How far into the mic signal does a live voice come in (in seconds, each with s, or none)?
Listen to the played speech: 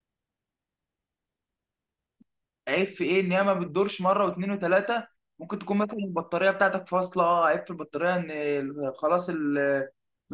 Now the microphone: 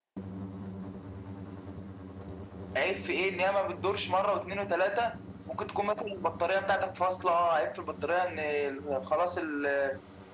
none